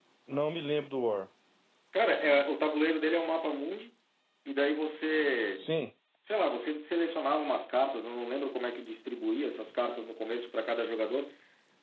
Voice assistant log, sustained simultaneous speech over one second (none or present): none